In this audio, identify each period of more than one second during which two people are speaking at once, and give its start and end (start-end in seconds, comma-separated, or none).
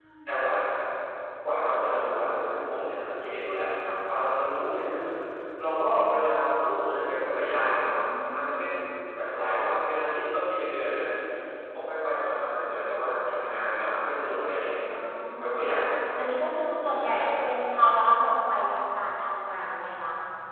none